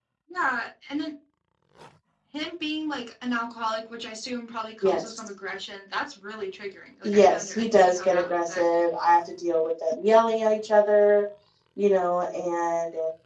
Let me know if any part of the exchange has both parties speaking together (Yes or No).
Yes